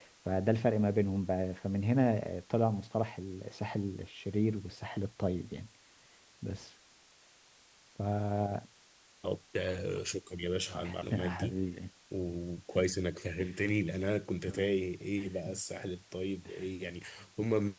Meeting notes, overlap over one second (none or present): none